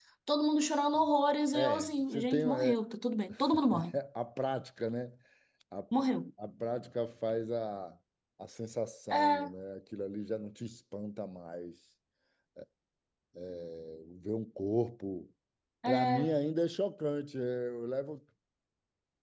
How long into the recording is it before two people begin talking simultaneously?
1.5 s

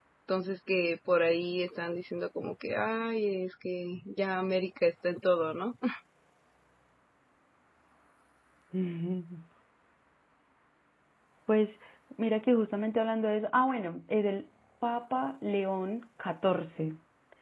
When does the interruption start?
none

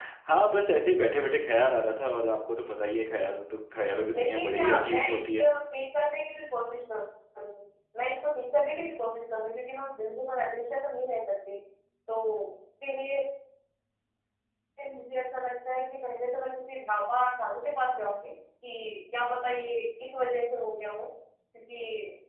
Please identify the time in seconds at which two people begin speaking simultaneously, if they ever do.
4.1 s

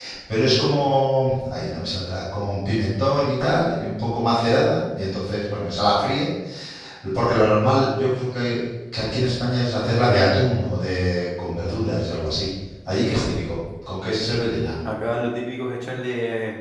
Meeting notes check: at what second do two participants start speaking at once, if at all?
none

